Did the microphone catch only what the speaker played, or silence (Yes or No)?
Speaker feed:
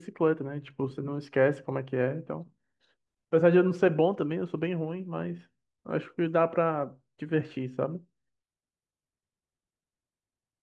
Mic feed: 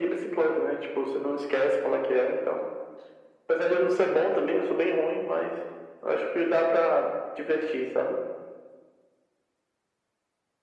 Yes